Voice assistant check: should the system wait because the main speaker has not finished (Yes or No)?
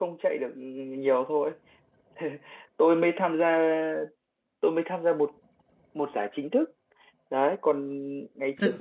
No